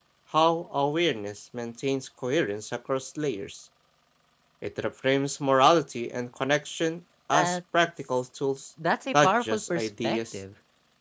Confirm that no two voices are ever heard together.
No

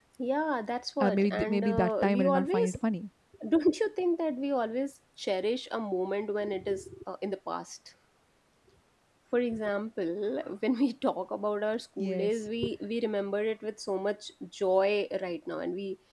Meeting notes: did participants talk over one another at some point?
Yes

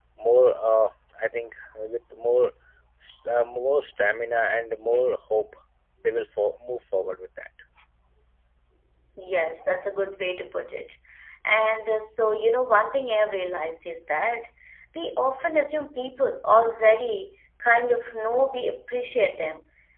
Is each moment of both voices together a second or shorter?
Yes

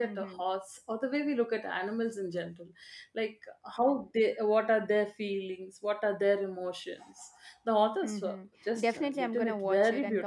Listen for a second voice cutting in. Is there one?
Yes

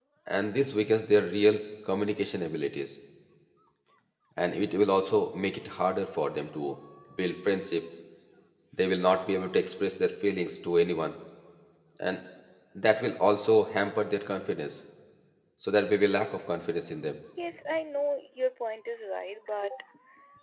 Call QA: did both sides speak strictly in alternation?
Yes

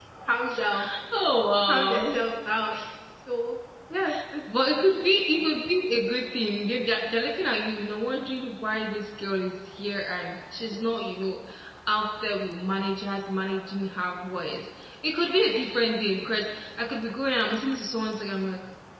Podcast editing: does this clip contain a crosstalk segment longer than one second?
No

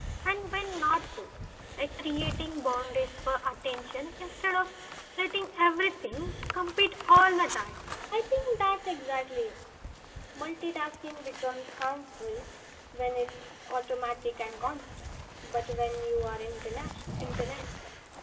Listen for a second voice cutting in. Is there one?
No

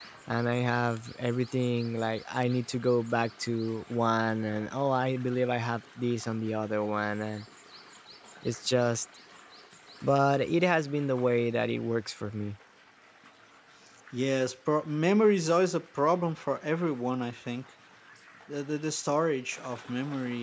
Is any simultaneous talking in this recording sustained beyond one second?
No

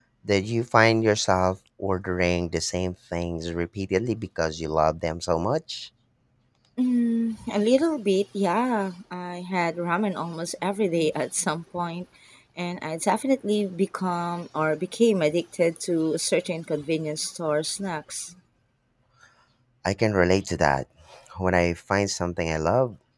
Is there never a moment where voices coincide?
Yes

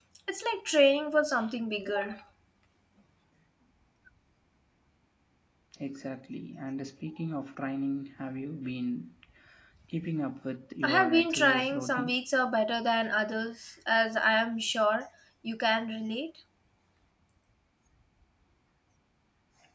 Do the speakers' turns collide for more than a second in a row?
Yes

